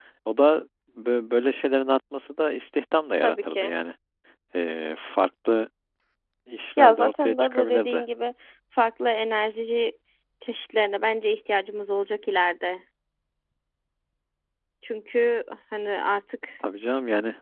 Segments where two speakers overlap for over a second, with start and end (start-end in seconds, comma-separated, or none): 6.8-8.1